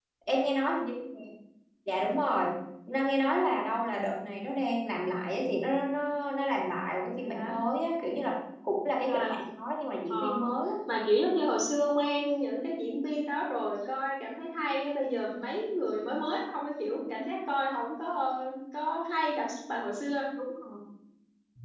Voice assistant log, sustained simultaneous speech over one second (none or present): none